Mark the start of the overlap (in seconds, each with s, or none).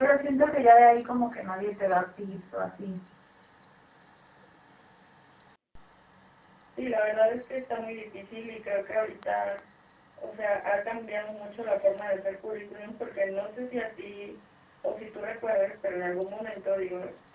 none